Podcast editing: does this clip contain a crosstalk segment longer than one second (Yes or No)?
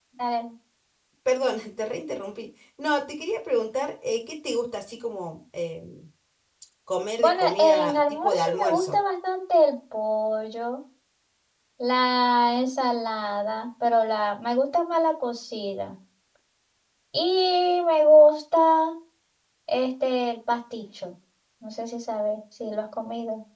Yes